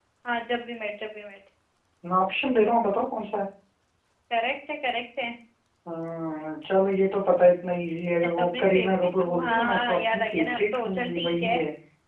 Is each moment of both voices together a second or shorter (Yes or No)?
No